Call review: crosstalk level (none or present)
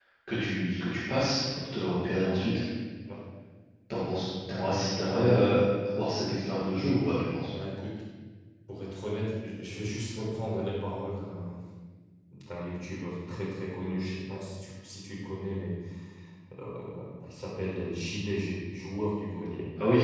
none